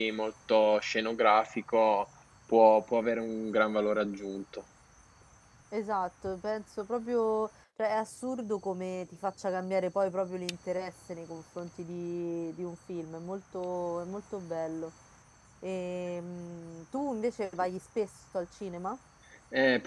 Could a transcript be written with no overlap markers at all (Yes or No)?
Yes